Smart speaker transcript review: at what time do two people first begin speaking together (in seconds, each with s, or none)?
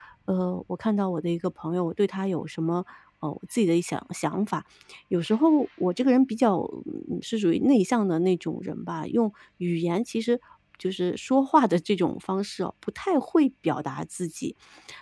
none